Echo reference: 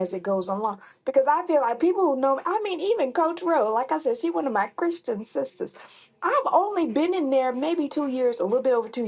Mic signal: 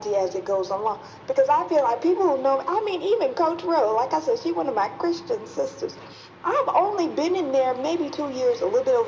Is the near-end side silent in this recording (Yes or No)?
Yes